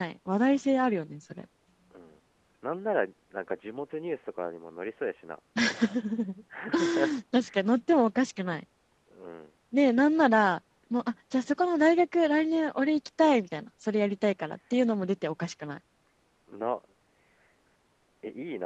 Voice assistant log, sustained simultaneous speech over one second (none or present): none